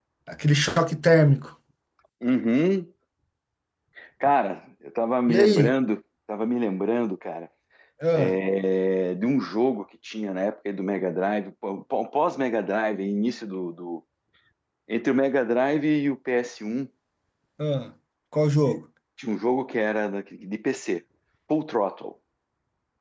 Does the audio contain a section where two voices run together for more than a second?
No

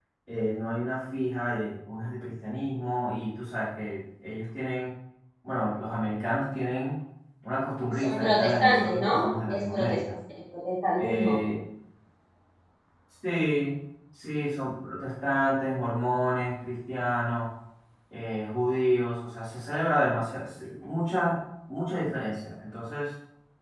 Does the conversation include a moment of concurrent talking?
Yes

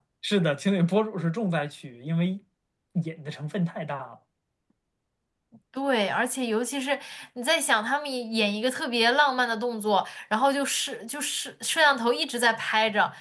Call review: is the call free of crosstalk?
Yes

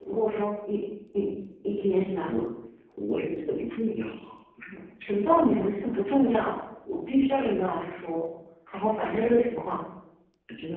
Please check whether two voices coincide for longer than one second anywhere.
No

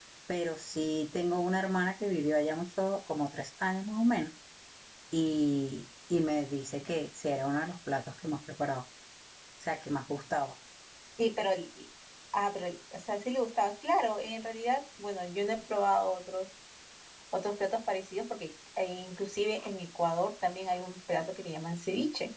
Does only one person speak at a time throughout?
Yes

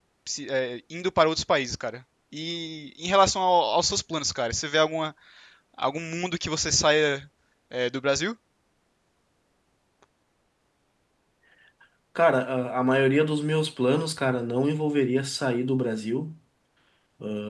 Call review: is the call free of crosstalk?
Yes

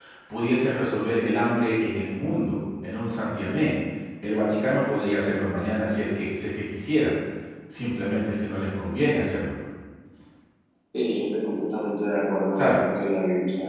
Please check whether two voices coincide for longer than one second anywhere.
No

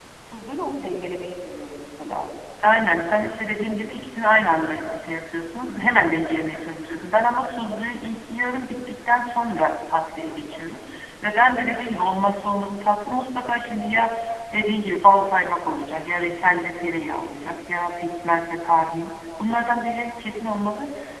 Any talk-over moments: No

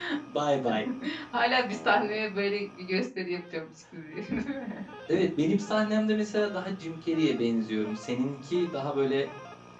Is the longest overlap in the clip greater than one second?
No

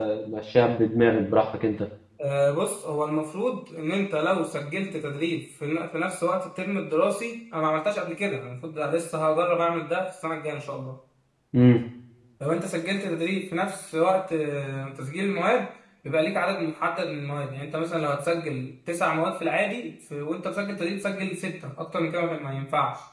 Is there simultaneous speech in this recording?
No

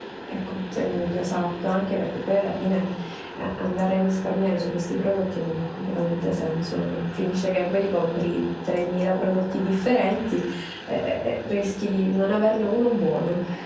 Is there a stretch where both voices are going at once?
No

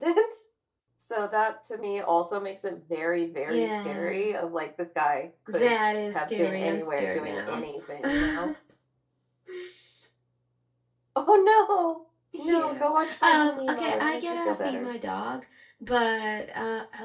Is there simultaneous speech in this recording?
Yes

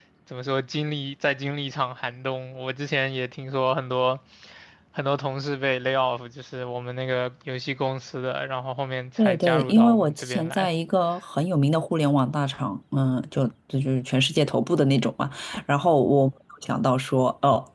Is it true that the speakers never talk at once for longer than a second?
No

